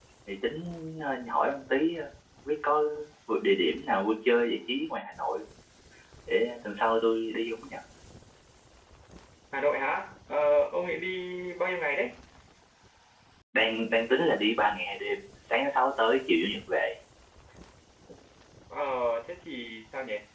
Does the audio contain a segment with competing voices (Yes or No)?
No